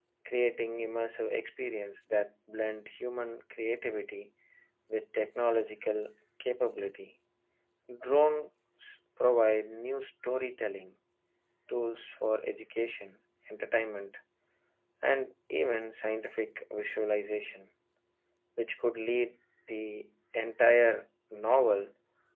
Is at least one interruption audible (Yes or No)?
No